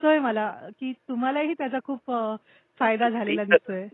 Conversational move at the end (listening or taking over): taking over